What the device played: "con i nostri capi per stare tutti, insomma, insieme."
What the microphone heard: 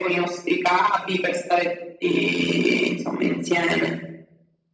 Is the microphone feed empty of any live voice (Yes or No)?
Yes